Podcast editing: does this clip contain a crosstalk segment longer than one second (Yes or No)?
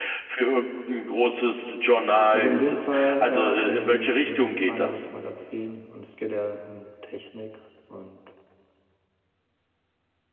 Yes